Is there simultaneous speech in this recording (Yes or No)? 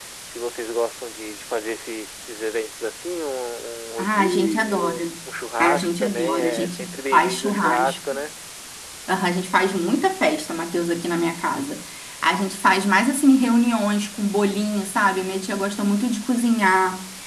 Yes